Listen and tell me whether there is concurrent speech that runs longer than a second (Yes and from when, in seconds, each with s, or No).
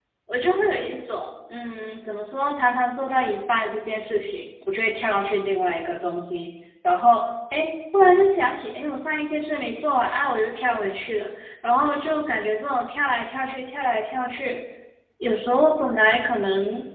No